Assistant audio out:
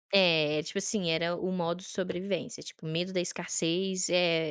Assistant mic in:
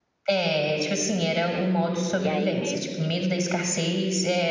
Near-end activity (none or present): present